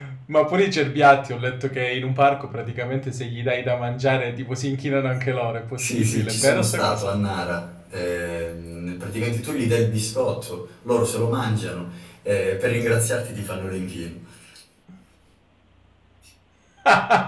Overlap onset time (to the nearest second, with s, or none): 6 s